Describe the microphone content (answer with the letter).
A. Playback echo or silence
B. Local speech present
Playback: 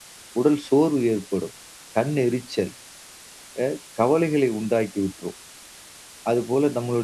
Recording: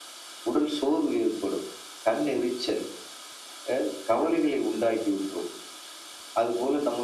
A